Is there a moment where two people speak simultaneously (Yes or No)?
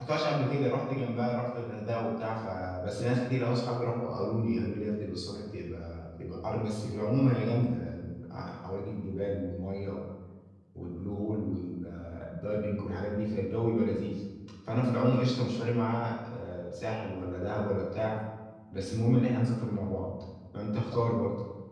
No